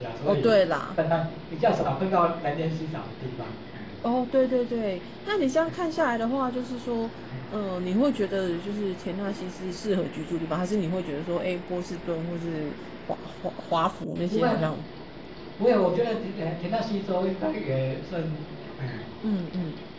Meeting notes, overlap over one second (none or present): none